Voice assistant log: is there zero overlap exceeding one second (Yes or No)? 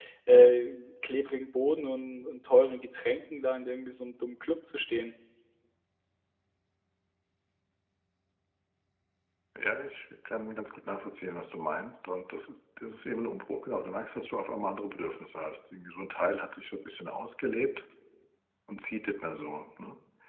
Yes